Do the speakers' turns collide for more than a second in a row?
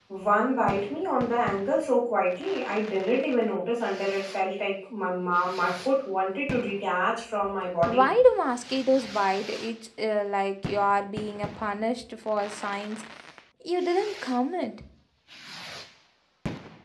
No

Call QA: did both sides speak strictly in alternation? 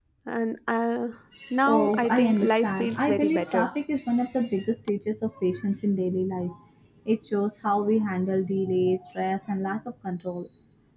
No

